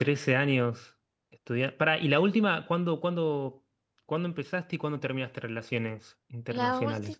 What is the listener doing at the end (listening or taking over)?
taking over